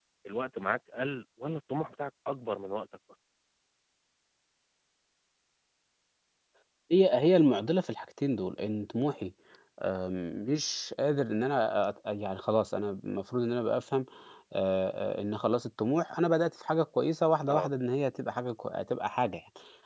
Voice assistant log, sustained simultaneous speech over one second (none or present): none